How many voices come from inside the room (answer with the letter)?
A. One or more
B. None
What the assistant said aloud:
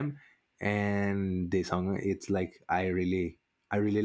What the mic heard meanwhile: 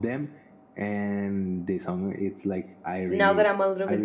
A